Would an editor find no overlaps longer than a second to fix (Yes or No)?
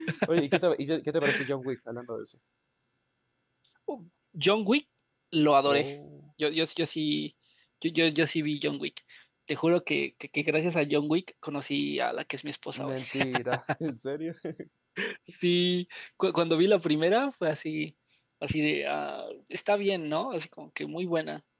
Yes